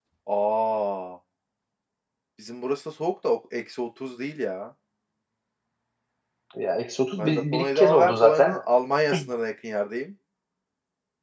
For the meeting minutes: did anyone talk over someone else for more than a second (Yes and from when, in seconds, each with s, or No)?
Yes, from 7.2 s